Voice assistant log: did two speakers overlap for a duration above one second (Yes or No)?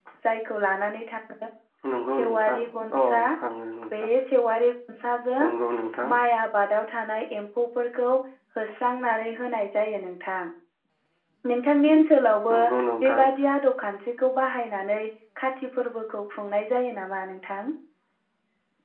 No